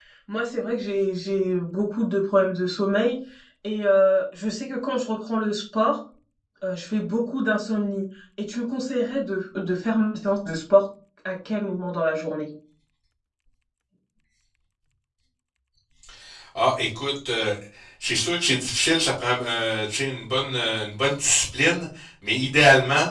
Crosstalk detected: No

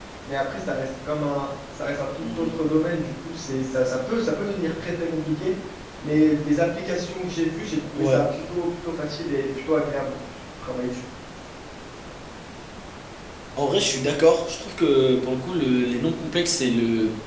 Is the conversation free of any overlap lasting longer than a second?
Yes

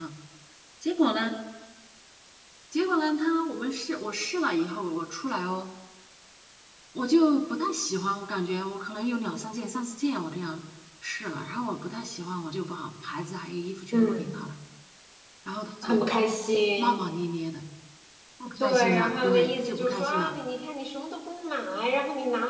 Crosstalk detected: Yes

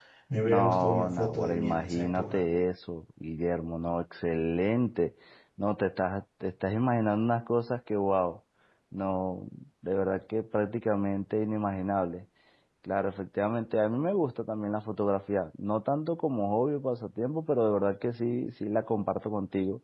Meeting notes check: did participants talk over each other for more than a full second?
Yes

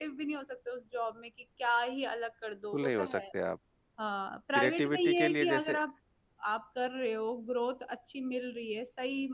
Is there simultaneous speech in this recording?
Yes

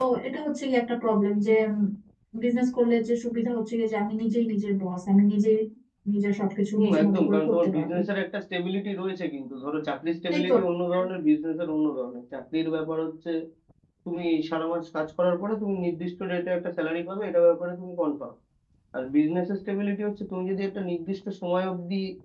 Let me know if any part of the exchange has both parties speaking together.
Yes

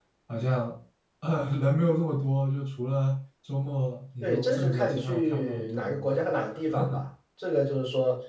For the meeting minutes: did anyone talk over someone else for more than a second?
Yes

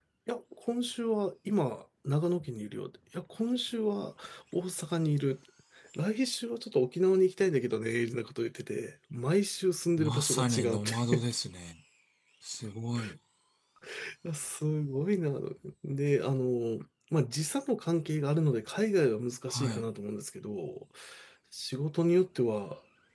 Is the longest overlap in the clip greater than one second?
Yes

